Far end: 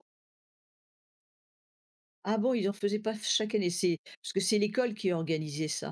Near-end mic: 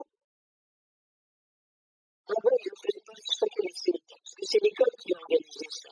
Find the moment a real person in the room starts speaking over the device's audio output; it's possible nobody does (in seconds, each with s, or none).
none